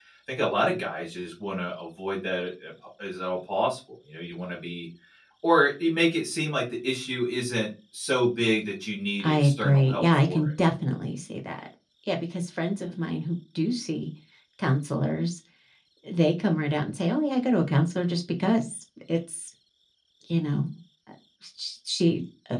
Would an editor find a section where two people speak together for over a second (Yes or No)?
Yes